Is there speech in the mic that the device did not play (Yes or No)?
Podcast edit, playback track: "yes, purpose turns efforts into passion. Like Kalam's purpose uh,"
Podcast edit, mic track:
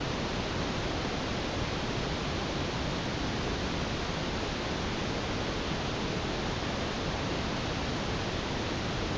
No